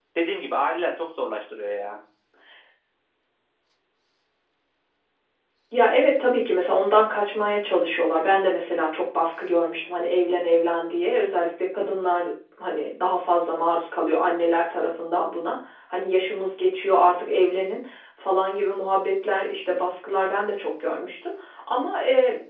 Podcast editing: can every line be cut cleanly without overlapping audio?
Yes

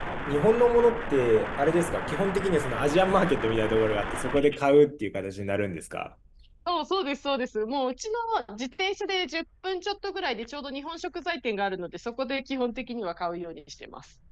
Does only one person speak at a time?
Yes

